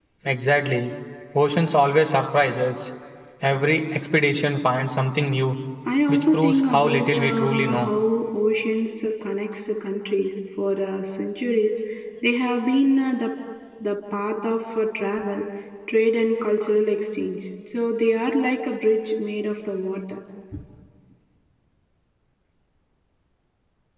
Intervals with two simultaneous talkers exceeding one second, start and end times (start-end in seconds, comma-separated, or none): 6.1-7.9